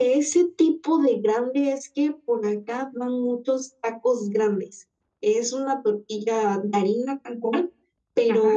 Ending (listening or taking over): listening